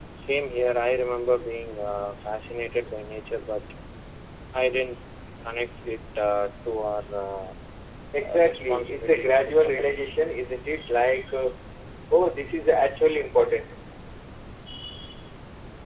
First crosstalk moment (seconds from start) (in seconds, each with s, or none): 8.2 s